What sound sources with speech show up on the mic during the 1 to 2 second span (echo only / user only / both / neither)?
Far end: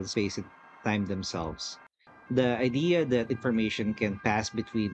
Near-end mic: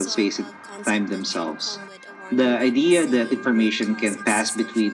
both